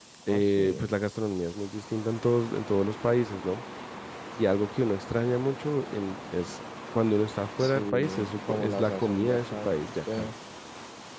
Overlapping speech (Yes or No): Yes